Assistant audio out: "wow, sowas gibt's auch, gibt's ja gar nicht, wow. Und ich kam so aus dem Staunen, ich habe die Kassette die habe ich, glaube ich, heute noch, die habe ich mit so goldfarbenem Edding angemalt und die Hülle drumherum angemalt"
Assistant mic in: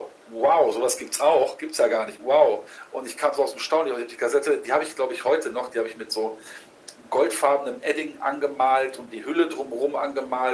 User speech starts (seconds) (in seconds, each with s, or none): none